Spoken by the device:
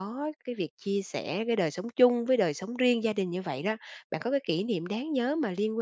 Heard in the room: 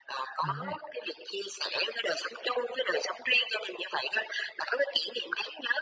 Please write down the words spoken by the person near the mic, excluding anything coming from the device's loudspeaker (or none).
mình đấy.